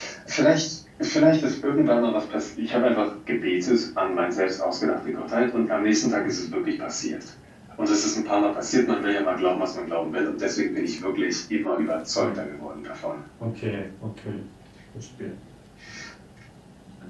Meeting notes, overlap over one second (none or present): none